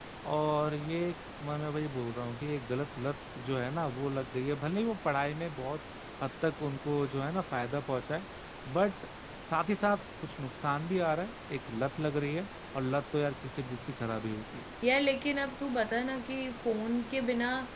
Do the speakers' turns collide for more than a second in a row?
No

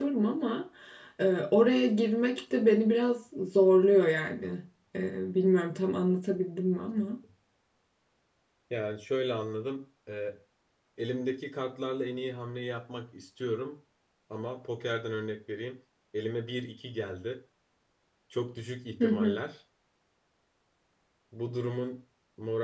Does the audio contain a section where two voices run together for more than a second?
No

